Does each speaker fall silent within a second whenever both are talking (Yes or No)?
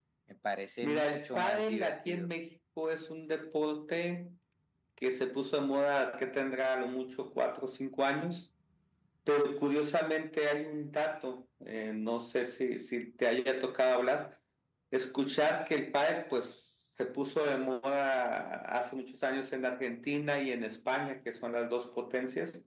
No